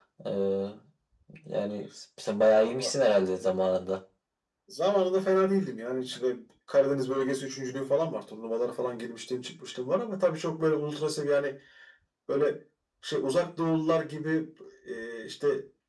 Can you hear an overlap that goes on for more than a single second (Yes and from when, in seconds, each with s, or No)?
No